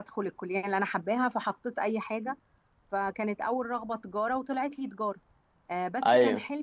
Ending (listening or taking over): listening